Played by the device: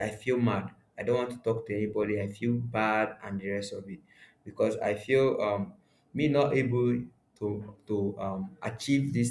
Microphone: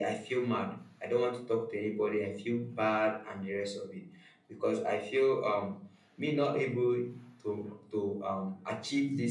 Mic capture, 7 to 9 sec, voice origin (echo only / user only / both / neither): echo only